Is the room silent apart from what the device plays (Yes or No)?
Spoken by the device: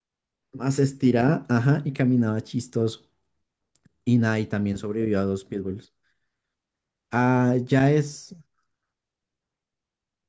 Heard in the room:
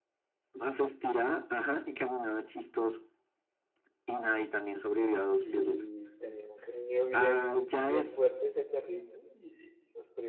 No